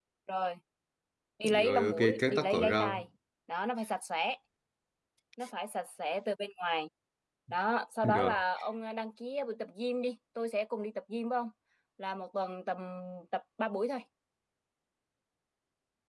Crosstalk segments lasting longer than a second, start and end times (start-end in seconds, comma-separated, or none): 1.4-3.0